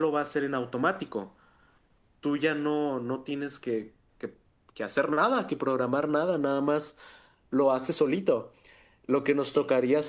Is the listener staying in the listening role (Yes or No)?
Yes